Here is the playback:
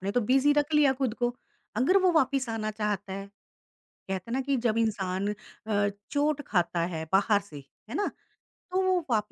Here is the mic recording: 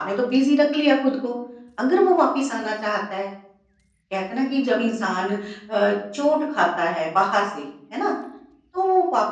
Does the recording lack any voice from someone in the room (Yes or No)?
Yes